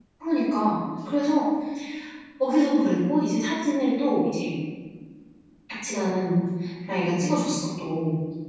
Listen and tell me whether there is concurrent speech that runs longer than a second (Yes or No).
No